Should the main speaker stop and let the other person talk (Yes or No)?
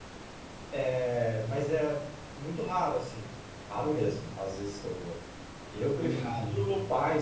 No